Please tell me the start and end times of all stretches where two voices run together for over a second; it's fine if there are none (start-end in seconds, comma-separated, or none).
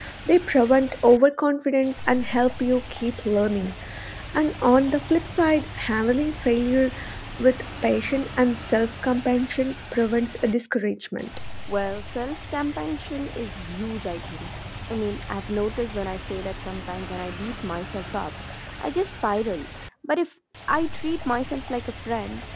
none